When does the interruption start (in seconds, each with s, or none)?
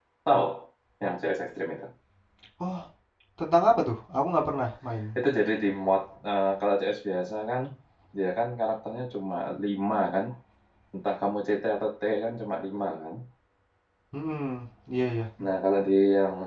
none